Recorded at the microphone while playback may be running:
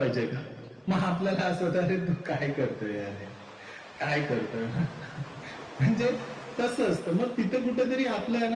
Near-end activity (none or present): none